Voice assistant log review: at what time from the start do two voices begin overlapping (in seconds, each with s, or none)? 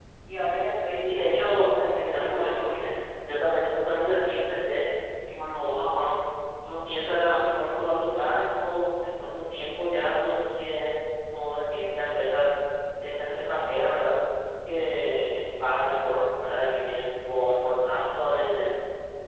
1.1 s